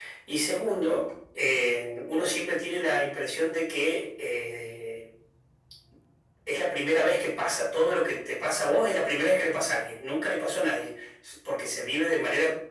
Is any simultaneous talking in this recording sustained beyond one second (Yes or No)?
No